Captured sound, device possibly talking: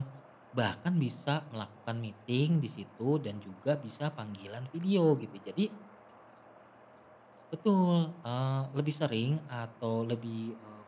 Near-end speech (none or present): none